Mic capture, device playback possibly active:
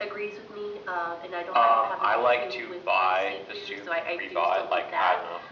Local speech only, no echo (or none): none